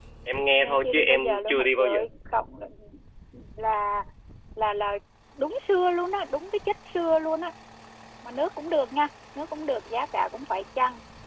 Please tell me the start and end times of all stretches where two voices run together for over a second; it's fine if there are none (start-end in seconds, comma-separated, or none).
0.6-2.0